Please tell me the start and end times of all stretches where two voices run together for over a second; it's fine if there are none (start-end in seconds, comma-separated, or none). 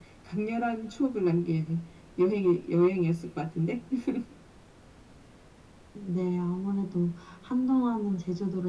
none